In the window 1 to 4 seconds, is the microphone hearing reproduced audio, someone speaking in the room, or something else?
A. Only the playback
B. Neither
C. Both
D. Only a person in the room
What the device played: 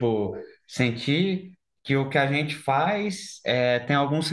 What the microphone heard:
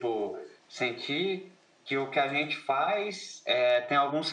A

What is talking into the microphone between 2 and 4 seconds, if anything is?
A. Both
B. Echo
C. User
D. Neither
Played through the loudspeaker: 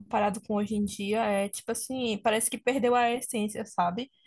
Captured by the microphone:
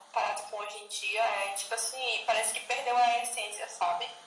B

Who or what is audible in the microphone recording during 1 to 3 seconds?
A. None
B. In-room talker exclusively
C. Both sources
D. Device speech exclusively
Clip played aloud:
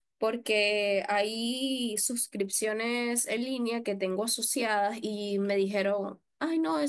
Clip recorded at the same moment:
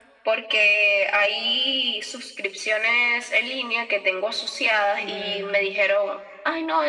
D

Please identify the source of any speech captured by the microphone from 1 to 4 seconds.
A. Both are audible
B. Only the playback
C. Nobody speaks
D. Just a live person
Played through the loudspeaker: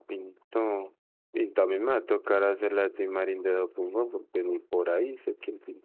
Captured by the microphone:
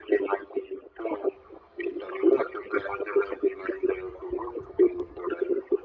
B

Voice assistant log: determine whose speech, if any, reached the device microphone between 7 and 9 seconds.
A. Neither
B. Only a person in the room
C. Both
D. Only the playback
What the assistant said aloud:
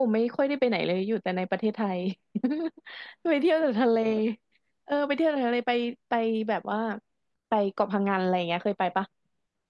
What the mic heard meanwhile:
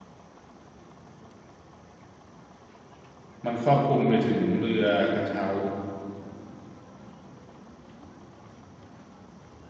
A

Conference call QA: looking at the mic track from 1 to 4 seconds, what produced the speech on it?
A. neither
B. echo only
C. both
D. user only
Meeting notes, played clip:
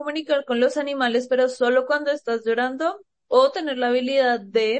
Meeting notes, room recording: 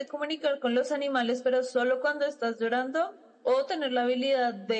B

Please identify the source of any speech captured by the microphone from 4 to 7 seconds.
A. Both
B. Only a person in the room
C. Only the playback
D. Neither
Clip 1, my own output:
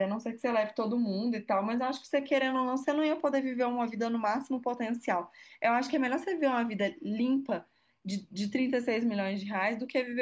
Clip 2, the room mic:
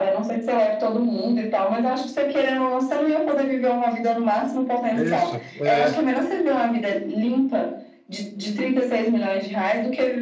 A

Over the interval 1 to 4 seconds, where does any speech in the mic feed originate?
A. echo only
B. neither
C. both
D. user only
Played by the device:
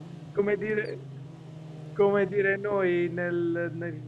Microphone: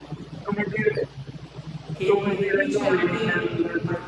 C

